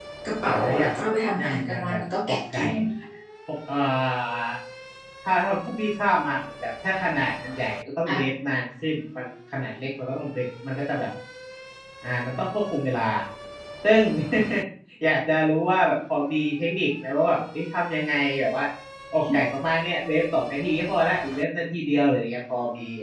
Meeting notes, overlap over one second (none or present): present